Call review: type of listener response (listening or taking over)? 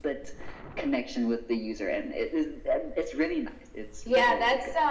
taking over